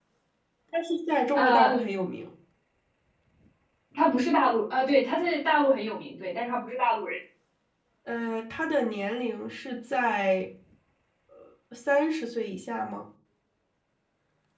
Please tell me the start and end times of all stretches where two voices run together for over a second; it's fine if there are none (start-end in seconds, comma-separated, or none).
none